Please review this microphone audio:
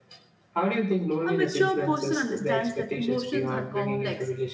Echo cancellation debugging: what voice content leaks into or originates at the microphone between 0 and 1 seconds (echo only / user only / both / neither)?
echo only